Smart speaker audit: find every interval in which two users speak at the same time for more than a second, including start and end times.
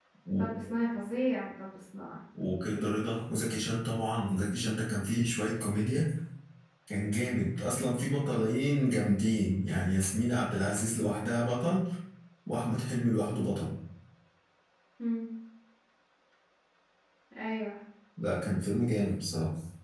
none

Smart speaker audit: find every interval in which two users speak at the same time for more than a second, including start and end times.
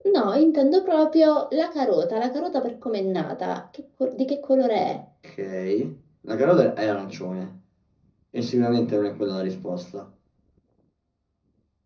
none

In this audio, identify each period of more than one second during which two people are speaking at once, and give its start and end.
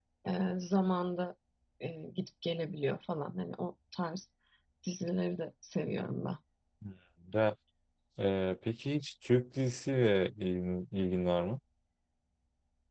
none

